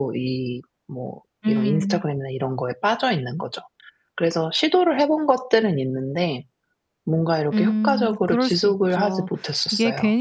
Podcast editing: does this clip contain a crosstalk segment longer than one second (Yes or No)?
Yes